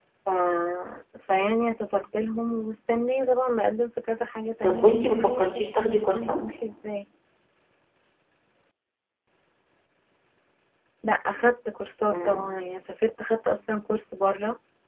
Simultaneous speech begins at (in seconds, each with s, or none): 4.6 s